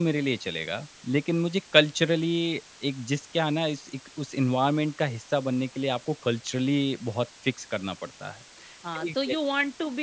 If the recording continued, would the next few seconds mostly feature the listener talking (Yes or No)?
Yes